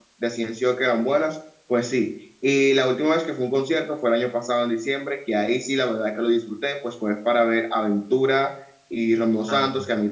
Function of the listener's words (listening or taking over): listening